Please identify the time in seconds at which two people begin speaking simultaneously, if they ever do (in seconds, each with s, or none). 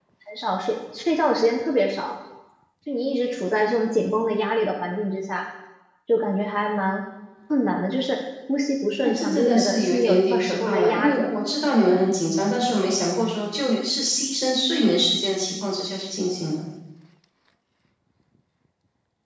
9.0 s